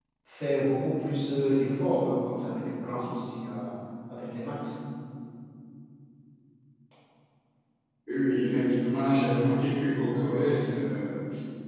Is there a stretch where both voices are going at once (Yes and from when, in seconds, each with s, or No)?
No